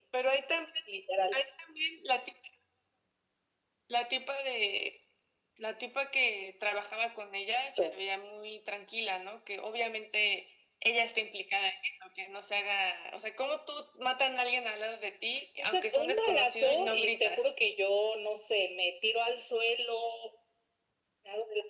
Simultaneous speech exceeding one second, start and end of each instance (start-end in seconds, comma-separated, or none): 15.6-17.5